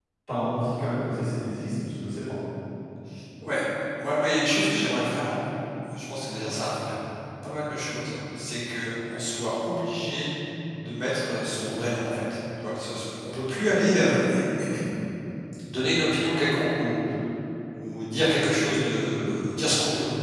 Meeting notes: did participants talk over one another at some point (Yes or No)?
No